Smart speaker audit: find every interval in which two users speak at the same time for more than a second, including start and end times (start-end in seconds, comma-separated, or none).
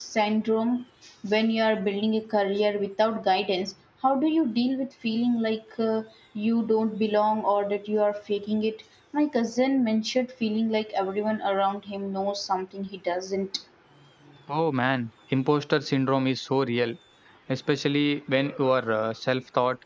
none